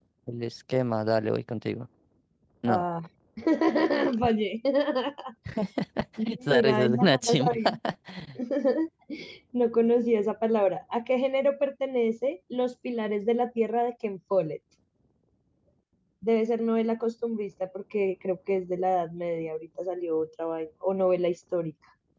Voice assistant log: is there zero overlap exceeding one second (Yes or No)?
No